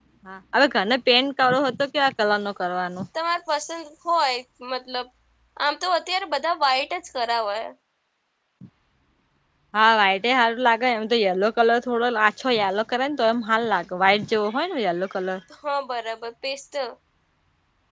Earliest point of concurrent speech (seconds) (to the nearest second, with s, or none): none